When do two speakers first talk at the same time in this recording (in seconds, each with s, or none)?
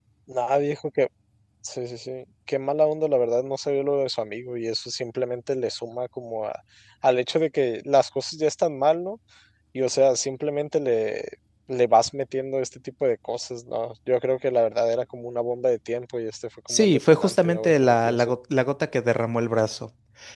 16.7 s